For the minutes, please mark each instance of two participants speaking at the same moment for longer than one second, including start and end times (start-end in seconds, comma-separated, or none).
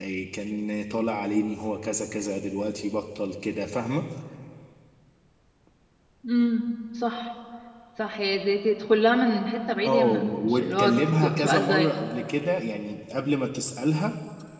9.8-11.9